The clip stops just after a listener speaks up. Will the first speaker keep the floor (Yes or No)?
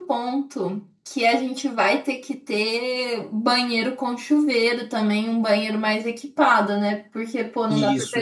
Yes